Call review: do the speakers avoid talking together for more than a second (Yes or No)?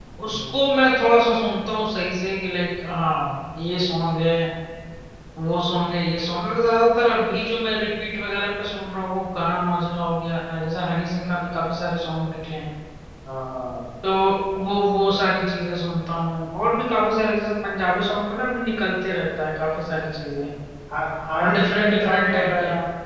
No